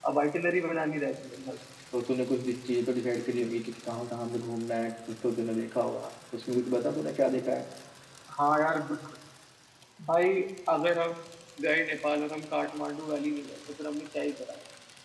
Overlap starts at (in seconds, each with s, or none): none